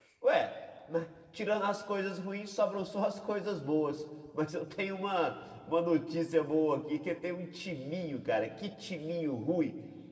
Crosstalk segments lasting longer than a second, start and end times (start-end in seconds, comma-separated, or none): none